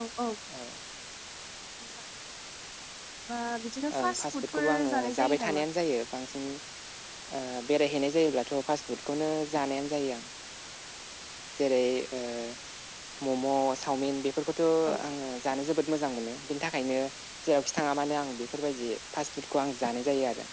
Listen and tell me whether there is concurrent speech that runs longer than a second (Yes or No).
Yes